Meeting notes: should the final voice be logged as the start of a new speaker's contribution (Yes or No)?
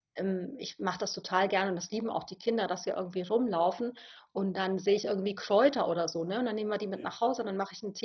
No